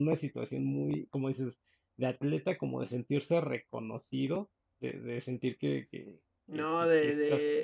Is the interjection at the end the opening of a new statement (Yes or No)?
Yes